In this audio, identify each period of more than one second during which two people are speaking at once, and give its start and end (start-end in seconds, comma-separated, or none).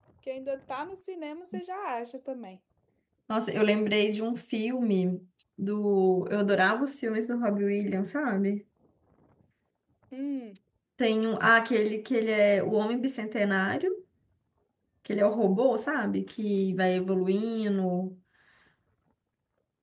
none